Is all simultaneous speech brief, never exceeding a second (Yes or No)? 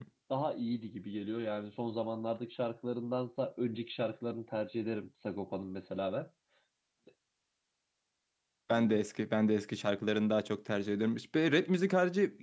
Yes